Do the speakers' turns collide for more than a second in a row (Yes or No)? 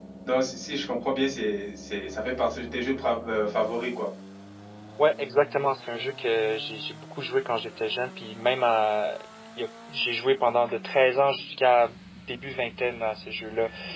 No